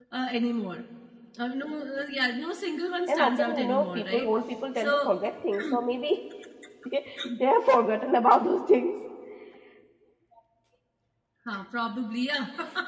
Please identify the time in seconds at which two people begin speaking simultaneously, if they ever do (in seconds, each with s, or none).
3.1 s